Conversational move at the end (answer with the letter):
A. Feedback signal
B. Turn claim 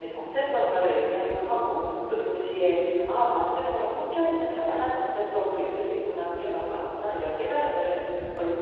A